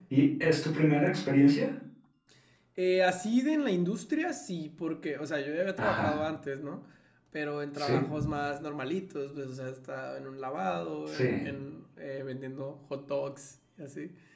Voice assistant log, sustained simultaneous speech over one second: none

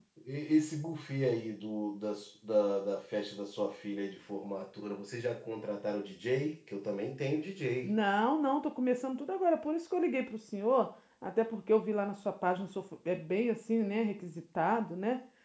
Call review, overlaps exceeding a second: none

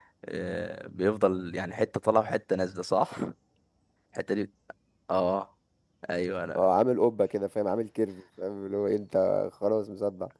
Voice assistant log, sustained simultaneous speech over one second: none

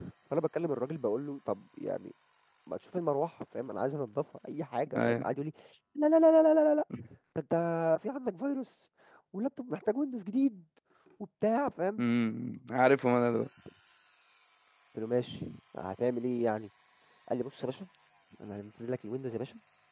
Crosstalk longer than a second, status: none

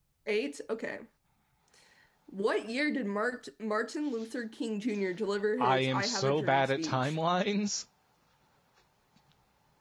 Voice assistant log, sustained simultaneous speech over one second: present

